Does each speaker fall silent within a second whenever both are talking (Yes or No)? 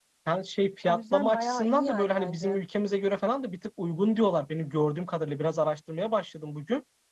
No